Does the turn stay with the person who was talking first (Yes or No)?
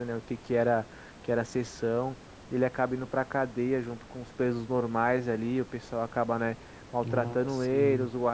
Yes